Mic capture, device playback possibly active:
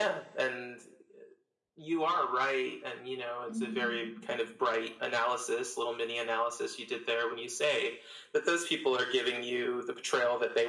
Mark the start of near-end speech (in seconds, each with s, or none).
3.5 s